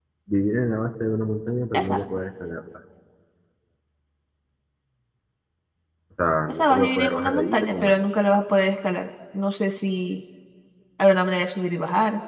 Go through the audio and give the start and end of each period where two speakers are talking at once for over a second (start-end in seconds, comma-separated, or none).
6.5-7.9